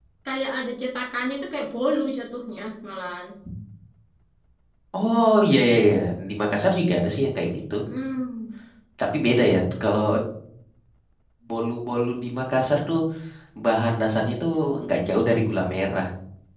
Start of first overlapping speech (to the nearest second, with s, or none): none